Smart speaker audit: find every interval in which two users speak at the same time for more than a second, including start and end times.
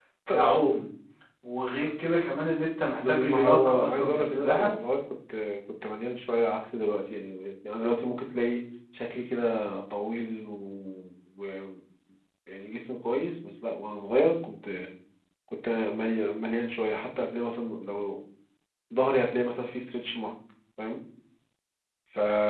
3.1-4.7

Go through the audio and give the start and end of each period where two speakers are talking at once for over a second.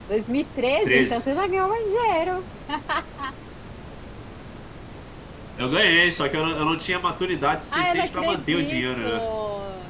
7.8-9.0

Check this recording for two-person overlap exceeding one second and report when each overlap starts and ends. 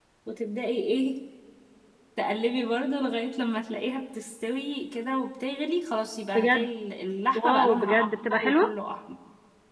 7.3-8.8

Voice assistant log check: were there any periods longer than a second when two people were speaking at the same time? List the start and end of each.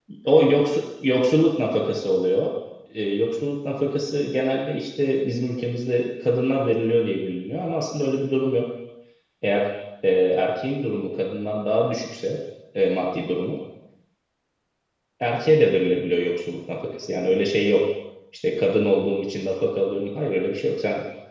none

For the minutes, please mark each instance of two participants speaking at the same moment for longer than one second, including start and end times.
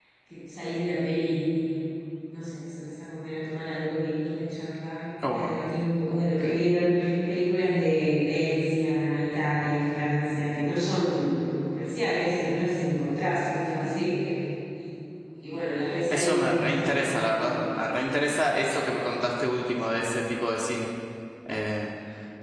16.1-17.5

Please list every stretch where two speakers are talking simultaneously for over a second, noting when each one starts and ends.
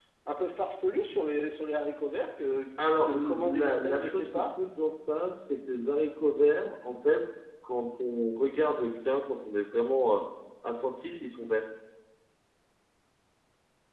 3.1-4.4

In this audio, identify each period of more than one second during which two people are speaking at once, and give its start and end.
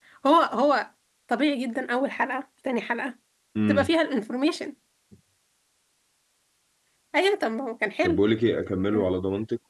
none

